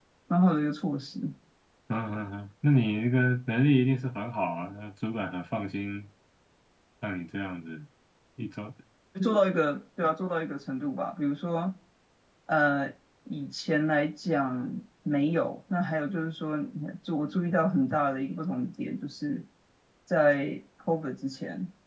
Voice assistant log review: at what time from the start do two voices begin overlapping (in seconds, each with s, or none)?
none